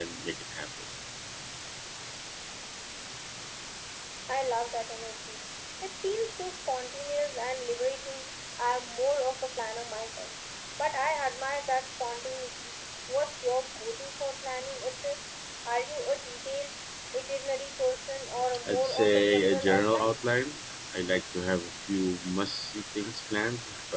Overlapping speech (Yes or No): Yes